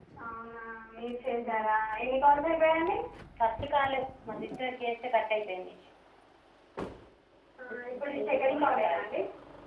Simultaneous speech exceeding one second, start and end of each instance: 7.7-9.0

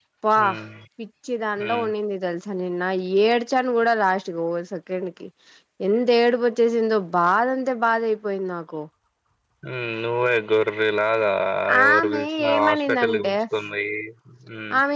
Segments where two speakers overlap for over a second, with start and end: 11.8-13.3

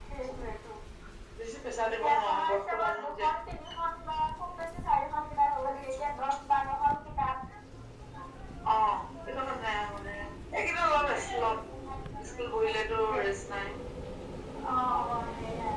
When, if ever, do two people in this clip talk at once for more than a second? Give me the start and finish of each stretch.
1.9-3.3

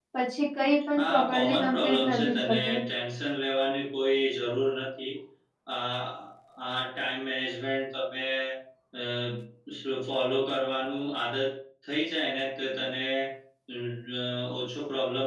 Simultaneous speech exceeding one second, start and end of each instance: 1.0-2.8

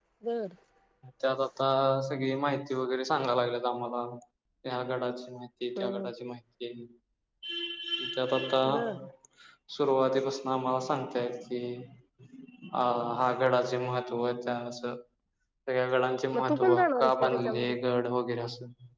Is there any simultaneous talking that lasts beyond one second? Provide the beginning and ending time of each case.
16.3-17.7

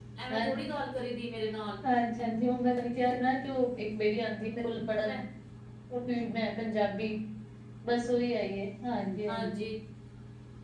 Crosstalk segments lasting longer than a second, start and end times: none

